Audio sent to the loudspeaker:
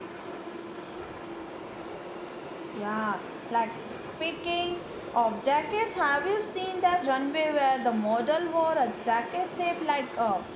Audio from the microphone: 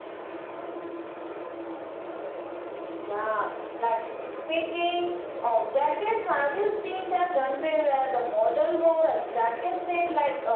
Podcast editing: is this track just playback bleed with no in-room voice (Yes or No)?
Yes